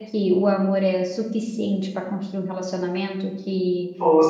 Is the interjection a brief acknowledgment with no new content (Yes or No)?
Yes